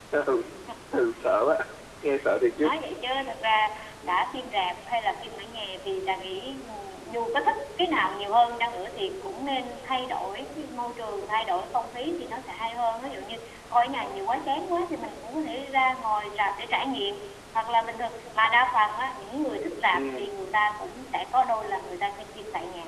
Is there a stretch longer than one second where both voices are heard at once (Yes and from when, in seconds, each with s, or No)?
No